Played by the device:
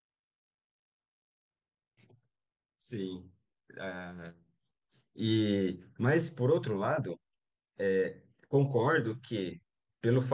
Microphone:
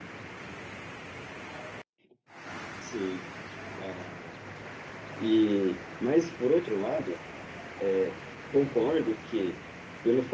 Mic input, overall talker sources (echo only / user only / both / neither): echo only